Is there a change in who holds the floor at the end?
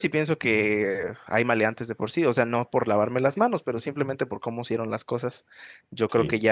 No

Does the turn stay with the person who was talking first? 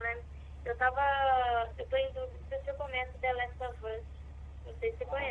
No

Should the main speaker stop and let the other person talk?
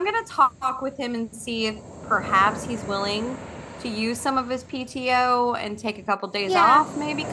Yes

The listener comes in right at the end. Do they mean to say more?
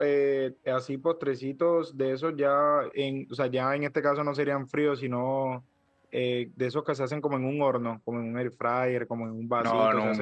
No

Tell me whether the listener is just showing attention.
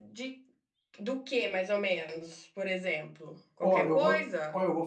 No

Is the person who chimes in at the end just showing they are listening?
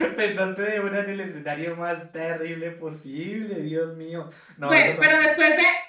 No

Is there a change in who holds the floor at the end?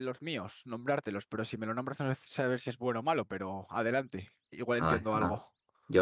Yes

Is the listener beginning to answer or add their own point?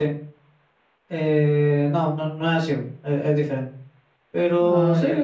No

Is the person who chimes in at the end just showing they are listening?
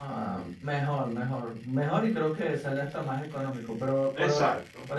Yes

